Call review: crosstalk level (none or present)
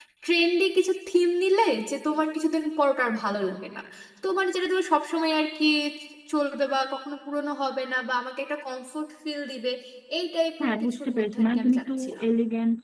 present